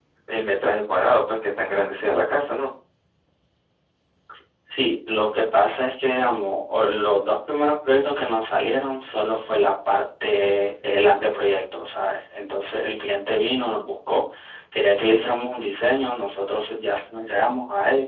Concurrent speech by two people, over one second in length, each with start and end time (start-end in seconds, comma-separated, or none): none